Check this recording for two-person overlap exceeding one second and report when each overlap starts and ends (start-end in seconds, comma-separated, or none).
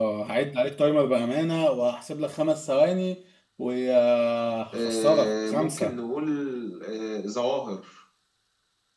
4.7-5.9